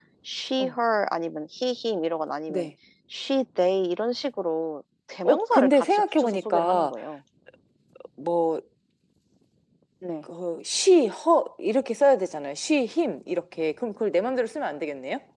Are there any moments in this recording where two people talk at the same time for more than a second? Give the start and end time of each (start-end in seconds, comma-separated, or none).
5.2-6.9